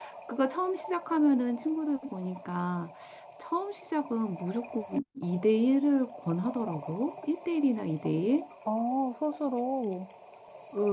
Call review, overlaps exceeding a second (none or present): none